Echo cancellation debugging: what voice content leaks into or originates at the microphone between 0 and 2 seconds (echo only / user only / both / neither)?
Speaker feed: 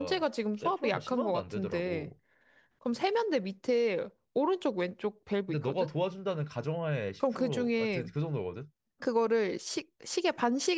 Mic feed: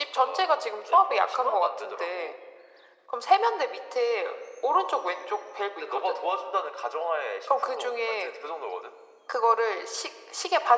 echo only